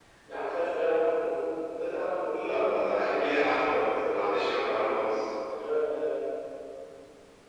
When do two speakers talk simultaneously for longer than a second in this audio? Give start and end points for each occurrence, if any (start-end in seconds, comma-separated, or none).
2.3-4.9